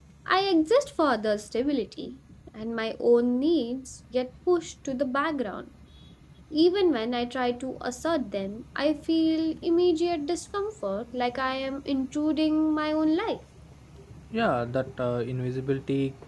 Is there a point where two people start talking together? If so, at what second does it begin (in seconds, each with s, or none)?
none